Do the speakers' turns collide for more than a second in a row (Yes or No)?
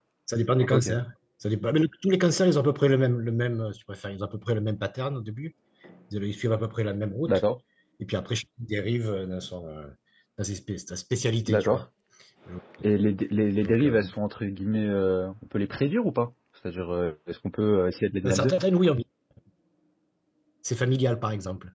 No